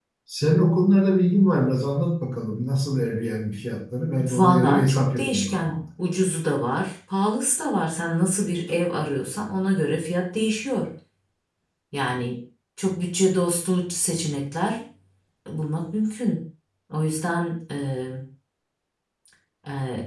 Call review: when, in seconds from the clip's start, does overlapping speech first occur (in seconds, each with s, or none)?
4.2 s